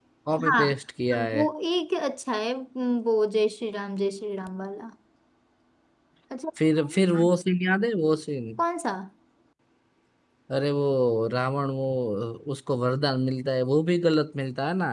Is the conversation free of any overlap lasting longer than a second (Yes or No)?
Yes